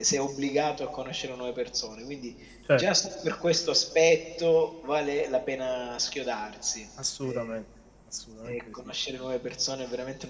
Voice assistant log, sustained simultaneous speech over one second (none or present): none